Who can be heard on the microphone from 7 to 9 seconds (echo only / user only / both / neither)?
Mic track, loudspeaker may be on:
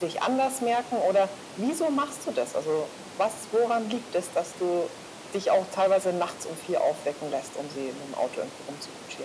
echo only